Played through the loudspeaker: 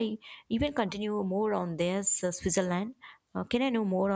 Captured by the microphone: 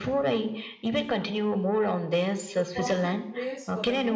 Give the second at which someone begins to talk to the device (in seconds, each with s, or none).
2.5 s